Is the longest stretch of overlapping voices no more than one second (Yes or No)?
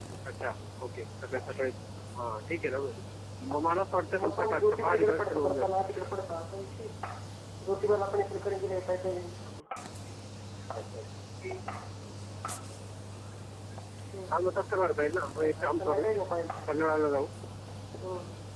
No